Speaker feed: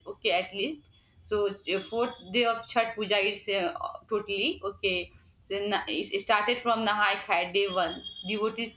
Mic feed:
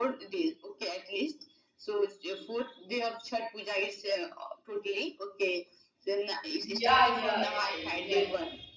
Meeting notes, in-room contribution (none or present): present